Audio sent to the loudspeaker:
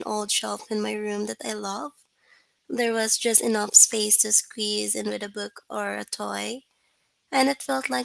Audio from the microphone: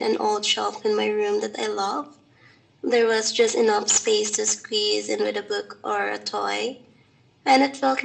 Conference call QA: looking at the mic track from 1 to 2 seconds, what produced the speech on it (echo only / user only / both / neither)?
echo only